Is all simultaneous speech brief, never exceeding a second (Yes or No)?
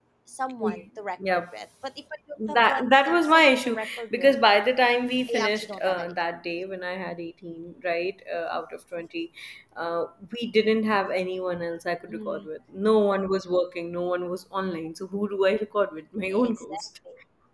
No